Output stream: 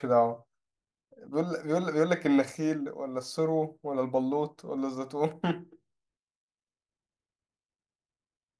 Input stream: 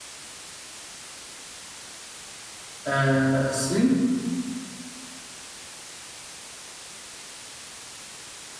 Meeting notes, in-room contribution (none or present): present